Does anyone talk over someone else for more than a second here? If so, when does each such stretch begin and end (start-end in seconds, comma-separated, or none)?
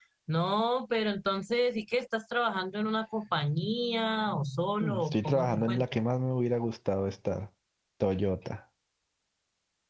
4.8-6.0